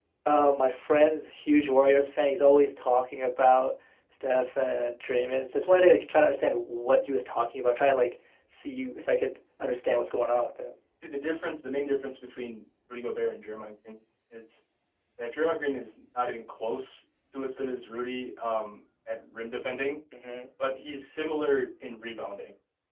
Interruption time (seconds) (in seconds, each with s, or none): none